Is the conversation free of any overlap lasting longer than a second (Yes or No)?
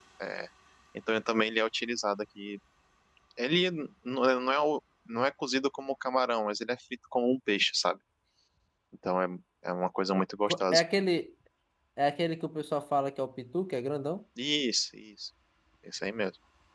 Yes